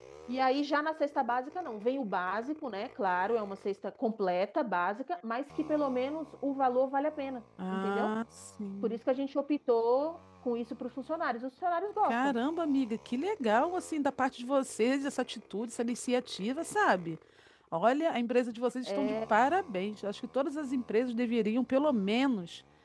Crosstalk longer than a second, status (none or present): none